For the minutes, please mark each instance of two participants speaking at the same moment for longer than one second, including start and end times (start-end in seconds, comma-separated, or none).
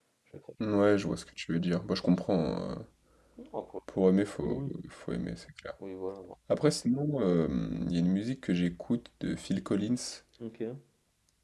none